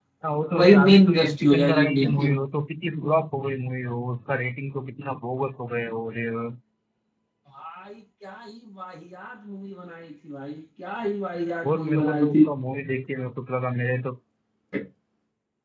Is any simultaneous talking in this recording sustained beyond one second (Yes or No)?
Yes